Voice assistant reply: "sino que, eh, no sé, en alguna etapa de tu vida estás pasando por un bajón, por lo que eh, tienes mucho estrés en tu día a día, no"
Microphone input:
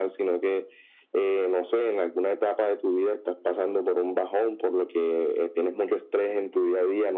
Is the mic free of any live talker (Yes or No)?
Yes